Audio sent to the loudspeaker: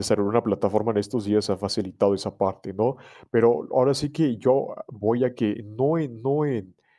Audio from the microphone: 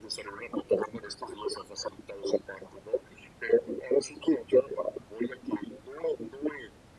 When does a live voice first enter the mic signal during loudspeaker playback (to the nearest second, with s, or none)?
none